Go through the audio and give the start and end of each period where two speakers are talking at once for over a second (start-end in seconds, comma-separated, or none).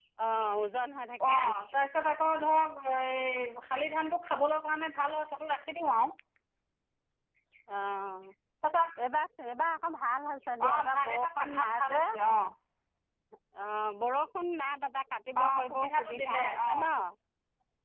10.7-12.0, 15.4-16.8